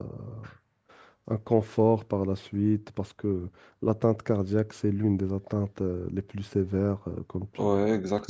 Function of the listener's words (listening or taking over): taking over